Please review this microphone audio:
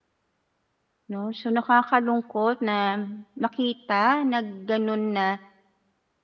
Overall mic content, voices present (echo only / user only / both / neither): user only